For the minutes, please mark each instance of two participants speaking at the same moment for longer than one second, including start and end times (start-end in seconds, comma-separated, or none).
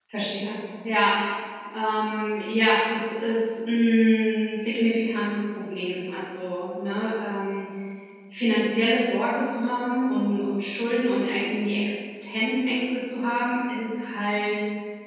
none